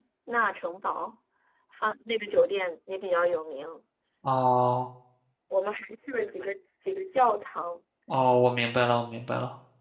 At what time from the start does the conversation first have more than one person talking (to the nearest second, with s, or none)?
none